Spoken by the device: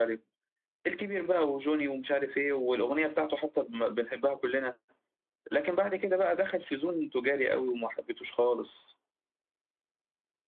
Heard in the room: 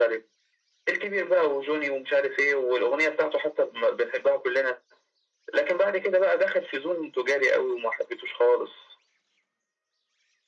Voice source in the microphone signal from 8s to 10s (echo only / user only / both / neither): echo only